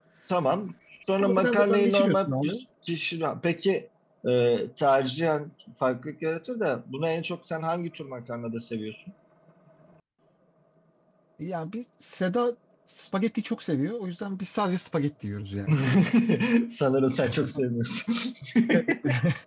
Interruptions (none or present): present